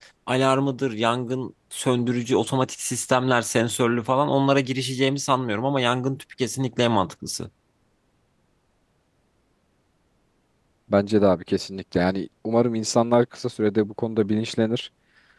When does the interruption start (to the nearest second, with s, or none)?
none